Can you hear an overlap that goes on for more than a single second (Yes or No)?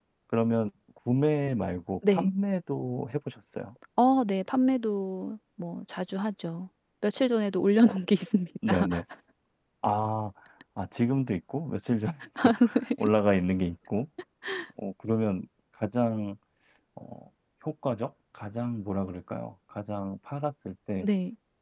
No